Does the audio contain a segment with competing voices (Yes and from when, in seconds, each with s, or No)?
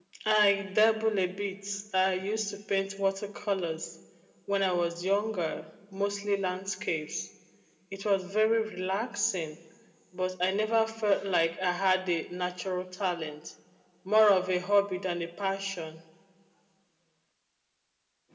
No